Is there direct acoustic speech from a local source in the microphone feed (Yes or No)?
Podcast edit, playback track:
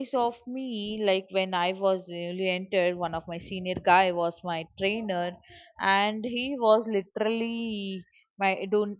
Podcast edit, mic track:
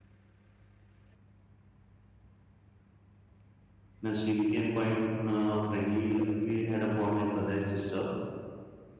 Yes